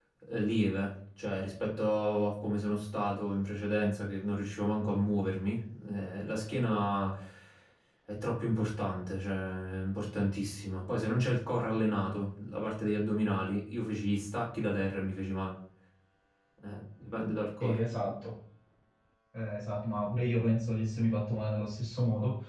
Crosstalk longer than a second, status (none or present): none